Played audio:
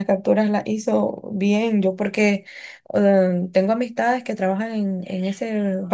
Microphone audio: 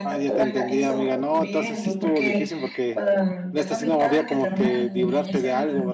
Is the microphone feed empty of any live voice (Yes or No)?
No